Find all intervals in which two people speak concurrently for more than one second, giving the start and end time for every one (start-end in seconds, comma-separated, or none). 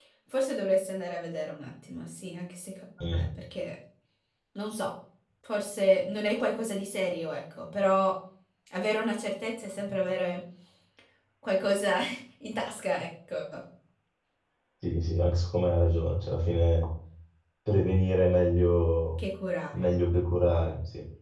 none